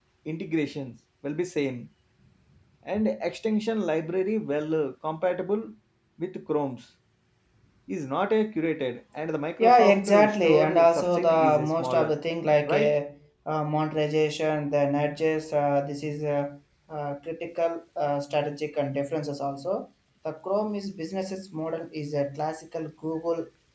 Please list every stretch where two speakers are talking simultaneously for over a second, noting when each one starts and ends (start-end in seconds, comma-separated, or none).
9.6-12.1